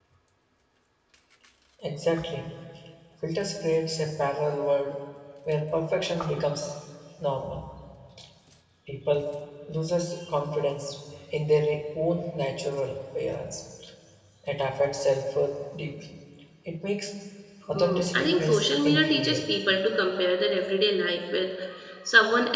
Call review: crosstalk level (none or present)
present